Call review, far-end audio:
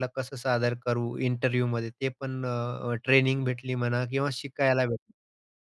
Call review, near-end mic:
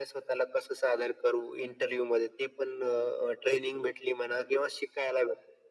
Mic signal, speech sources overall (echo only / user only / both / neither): echo only